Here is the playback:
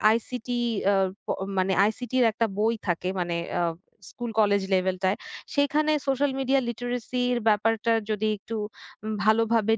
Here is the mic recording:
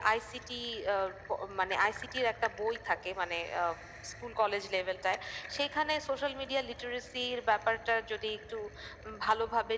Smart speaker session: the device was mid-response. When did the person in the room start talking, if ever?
none

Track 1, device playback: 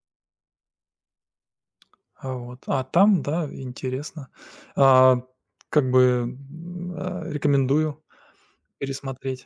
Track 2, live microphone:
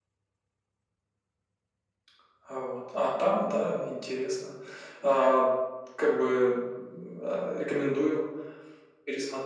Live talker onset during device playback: none

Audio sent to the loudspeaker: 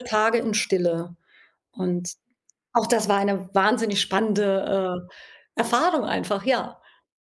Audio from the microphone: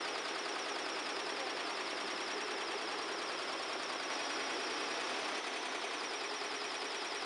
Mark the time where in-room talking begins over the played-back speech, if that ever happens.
none

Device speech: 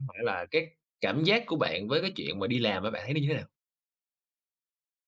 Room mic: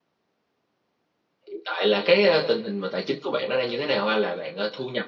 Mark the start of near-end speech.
1.5 s

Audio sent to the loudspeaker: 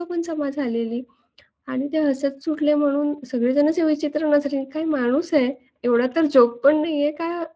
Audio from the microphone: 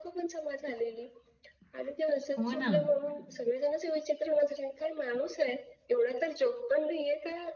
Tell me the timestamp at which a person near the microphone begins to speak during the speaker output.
2.4 s

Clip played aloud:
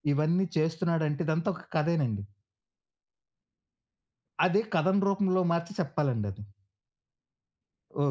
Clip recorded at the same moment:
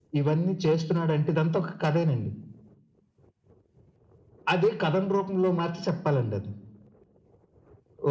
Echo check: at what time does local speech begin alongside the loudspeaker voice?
none

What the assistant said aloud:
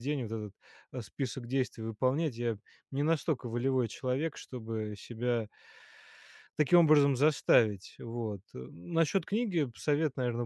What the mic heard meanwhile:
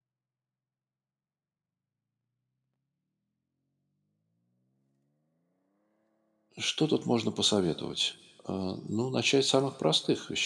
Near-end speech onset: 6.6 s

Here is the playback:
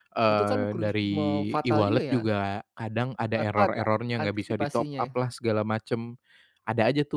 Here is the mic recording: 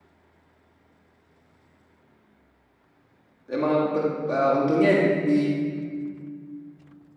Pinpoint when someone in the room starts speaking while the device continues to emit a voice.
3.5 s

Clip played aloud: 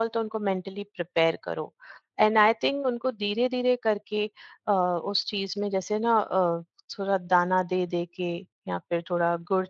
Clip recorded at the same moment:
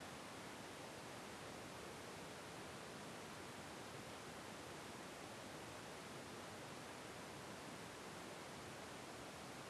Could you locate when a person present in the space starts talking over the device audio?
none

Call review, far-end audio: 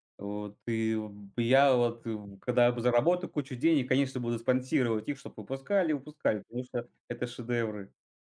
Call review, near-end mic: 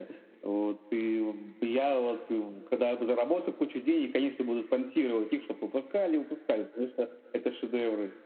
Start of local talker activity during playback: none

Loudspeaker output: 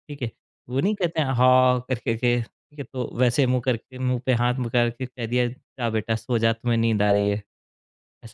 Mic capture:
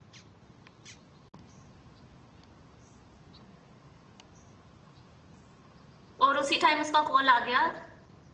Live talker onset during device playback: 6.2 s

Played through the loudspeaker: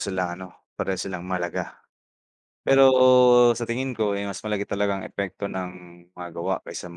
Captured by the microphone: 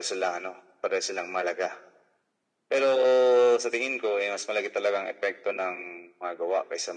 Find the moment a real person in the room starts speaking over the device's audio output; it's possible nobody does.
none

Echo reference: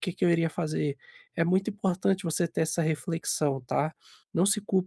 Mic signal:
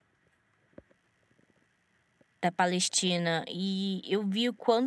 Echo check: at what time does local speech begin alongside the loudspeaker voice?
2.4 s

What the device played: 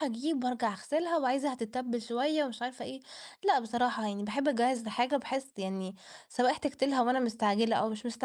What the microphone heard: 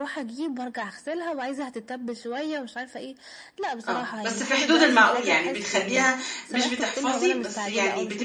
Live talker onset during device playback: 3.9 s

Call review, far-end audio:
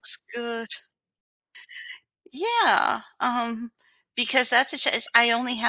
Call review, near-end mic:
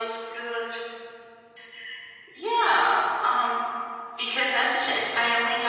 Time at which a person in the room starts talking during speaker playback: none

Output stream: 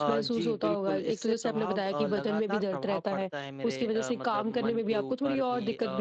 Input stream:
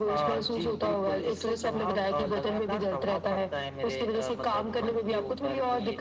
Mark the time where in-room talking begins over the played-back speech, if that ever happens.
none

